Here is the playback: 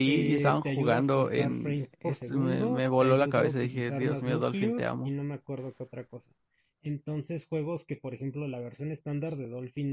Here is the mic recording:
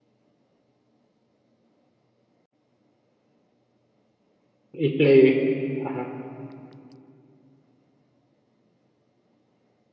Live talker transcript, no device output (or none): Y Play. Ajá.